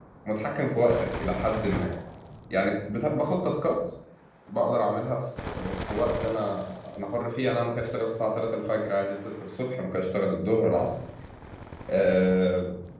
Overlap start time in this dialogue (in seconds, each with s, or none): none